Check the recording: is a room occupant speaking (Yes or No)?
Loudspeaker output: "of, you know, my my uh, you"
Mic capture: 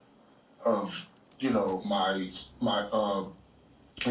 No